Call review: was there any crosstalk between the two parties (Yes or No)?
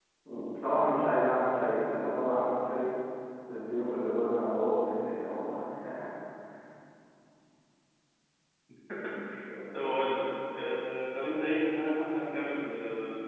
No